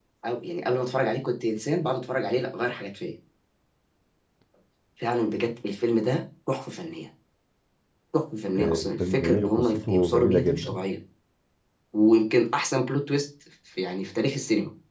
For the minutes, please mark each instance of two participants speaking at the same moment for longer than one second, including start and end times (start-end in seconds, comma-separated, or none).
8.6-10.8